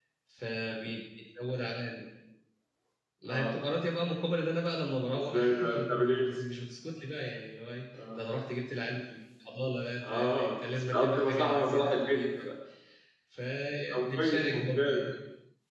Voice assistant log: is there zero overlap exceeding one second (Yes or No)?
No